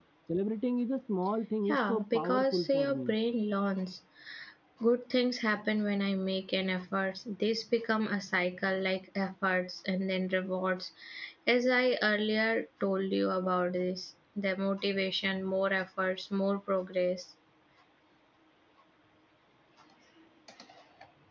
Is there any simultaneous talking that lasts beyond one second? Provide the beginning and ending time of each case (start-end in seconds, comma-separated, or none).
1.7-3.1